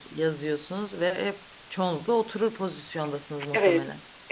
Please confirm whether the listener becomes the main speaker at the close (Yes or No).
Yes